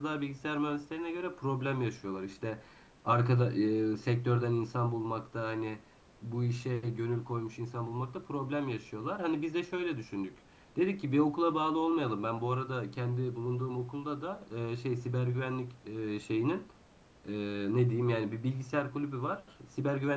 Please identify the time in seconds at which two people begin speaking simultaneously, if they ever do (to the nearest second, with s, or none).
none